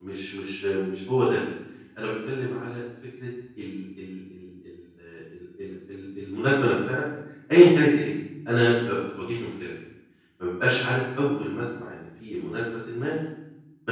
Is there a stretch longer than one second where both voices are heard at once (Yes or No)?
No